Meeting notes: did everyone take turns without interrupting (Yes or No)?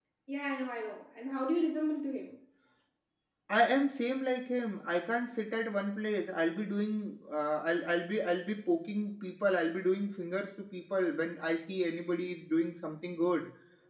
Yes